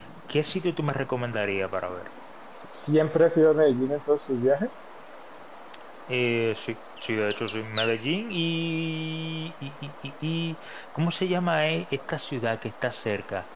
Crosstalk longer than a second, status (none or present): none